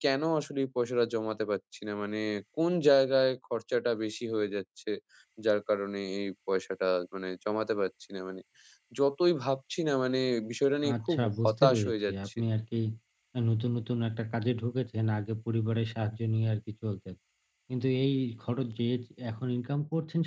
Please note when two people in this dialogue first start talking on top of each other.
10.8 s

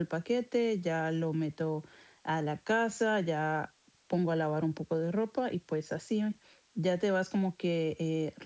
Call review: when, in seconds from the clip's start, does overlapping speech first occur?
none

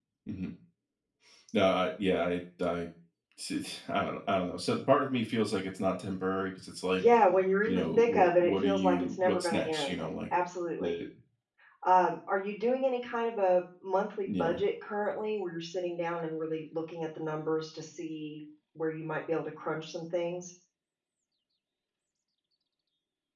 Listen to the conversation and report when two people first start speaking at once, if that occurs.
7.7 s

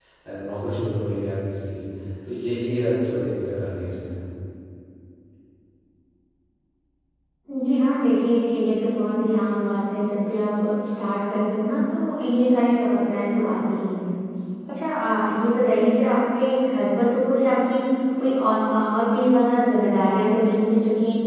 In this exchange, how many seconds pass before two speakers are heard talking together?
none

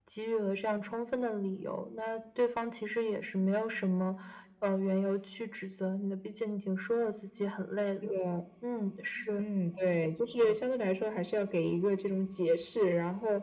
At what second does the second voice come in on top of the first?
none

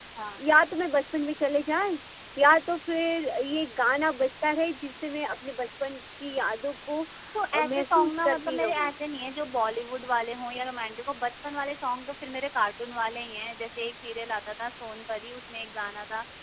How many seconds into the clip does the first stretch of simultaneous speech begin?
7.5 s

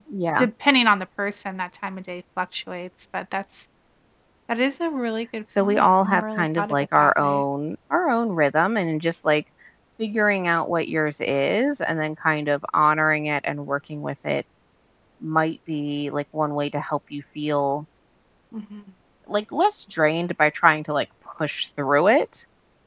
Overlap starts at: 5.6 s

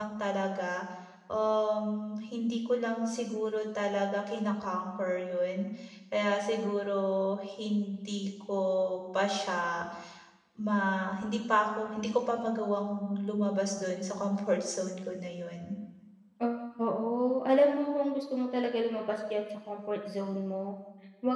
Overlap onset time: none

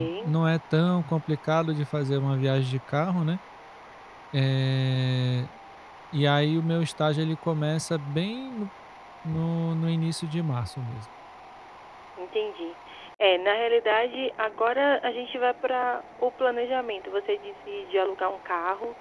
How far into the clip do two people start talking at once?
none

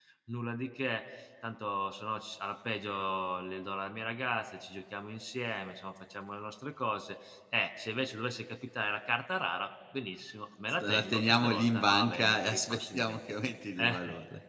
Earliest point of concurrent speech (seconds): 10.8 s

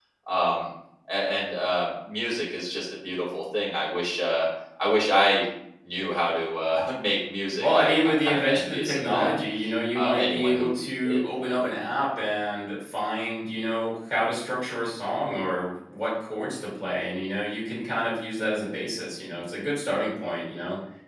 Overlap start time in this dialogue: 7.6 s

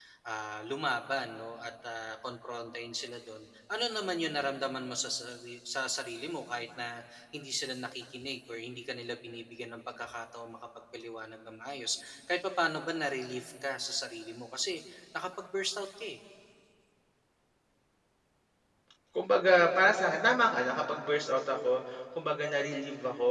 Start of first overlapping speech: none

